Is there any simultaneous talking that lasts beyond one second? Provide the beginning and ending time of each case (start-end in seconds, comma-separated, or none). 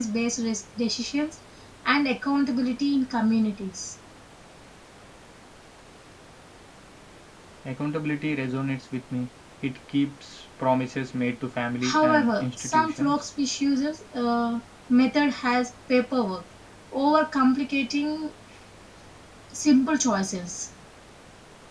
11.9-13.2